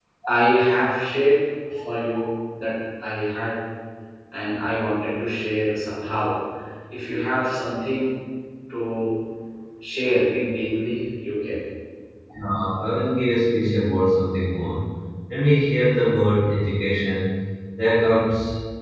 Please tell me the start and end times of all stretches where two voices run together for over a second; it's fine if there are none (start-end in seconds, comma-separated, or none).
none